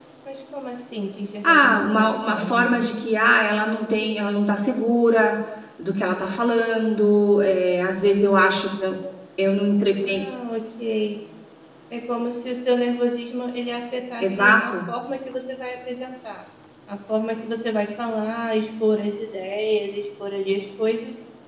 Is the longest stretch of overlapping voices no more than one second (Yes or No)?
No